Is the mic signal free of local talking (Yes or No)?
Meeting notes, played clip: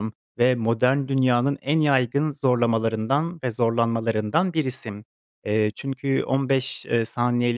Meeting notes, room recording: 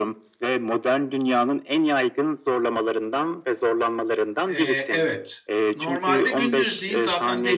No